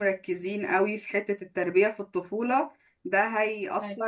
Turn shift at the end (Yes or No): No